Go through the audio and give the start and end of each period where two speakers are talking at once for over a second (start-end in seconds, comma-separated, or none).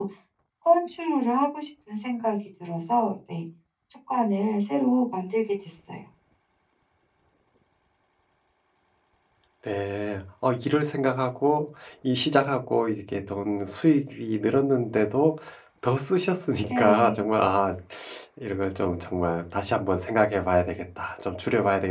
none